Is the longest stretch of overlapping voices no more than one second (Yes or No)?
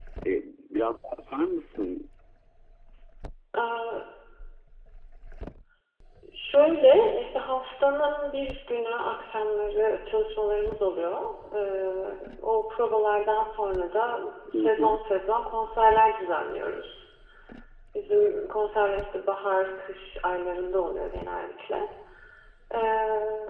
Yes